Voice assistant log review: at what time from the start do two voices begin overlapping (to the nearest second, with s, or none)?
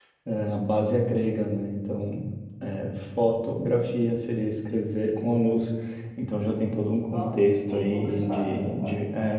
7 s